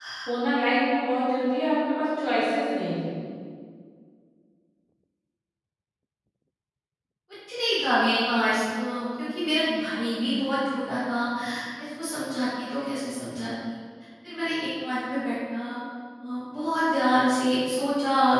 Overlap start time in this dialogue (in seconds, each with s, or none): none